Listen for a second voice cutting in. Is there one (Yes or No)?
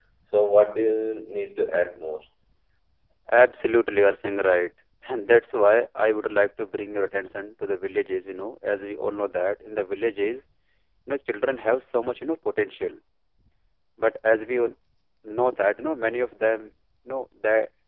No